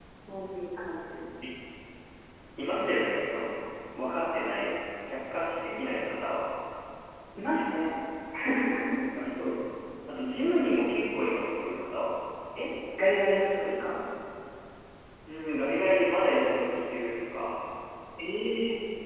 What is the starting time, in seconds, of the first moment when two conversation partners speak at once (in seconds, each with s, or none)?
none